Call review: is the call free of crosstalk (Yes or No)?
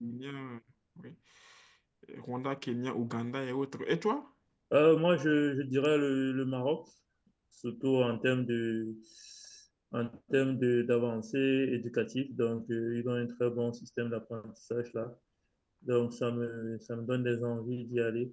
Yes